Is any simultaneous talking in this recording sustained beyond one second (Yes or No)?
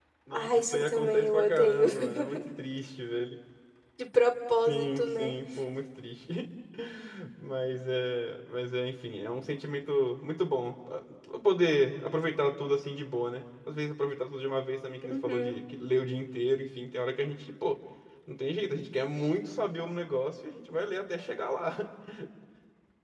Yes